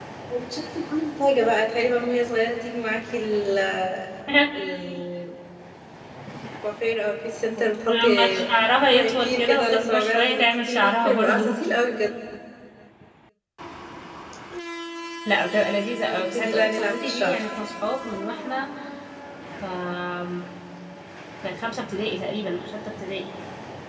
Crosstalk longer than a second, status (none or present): present